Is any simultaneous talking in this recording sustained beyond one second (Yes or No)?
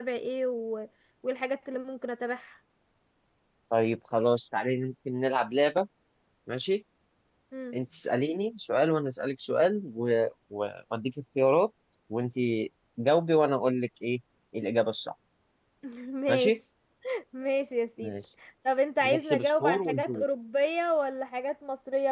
Yes